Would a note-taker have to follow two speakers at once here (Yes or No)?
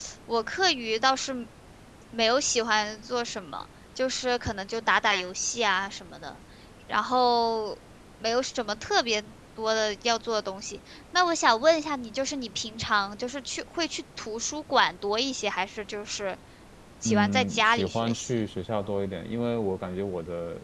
Yes